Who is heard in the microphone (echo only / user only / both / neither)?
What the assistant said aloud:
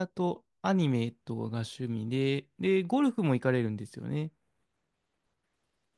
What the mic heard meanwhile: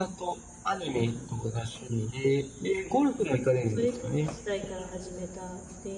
both